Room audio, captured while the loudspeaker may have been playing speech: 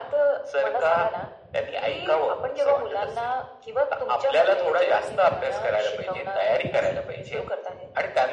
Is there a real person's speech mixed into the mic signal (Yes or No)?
No